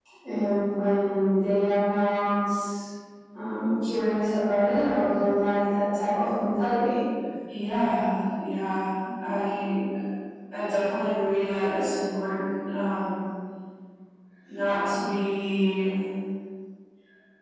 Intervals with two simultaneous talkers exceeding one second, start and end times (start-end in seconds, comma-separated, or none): none